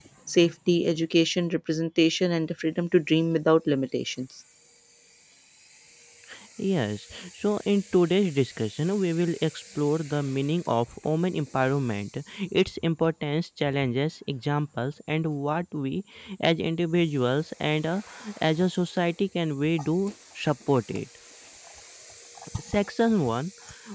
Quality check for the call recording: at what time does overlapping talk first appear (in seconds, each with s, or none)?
none